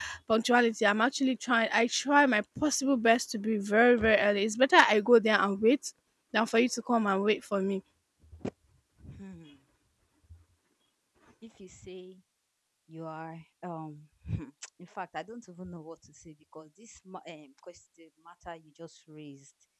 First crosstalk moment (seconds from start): none

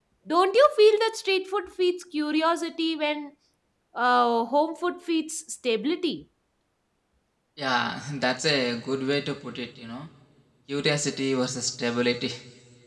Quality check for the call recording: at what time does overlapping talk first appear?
none

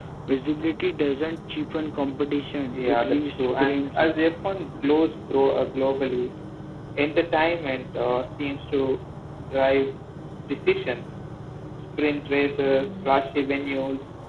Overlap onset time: 2.7 s

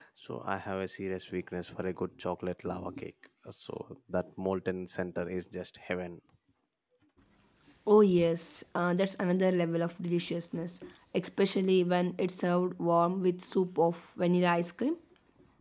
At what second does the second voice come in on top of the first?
none

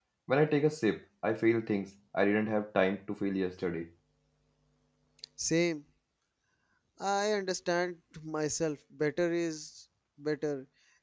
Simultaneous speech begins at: none

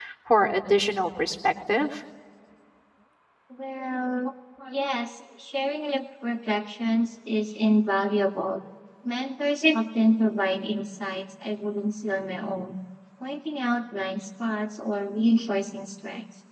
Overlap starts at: none

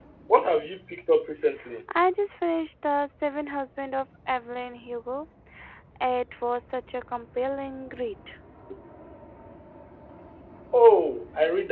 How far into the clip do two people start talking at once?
none

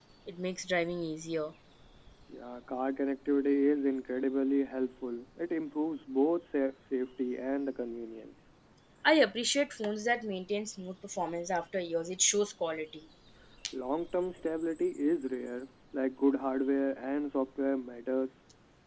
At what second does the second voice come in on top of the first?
none

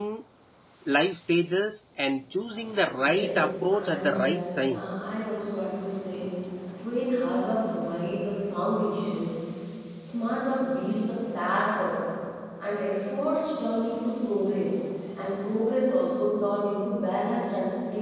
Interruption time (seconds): 3.0 s

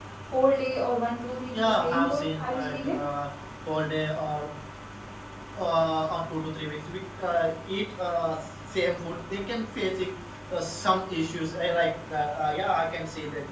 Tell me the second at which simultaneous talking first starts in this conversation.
1.5 s

